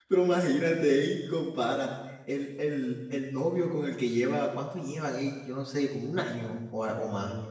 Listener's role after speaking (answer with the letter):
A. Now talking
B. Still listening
A